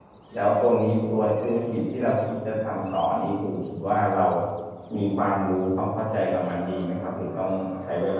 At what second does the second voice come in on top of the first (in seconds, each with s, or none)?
none